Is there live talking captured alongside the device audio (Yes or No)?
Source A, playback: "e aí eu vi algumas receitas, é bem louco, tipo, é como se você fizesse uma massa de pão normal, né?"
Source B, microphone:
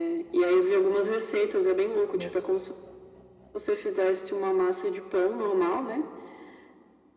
Yes